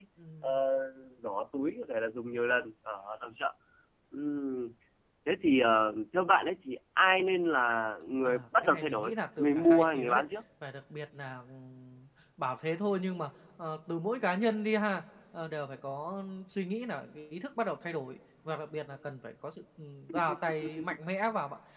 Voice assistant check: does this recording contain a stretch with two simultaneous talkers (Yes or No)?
Yes